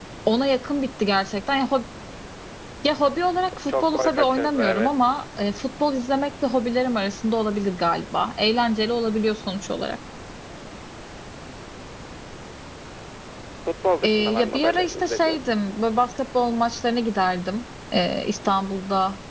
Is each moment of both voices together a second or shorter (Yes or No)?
No